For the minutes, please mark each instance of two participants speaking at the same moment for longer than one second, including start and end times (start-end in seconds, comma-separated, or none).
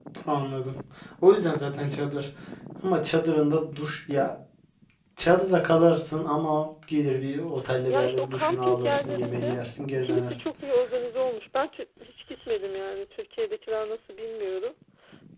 7.9-9.6